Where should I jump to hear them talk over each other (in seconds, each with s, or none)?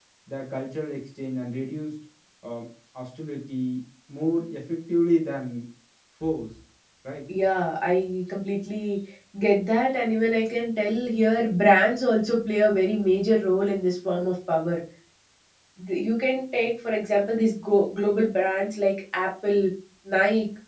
none